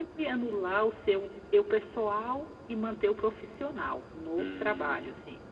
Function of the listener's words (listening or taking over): taking over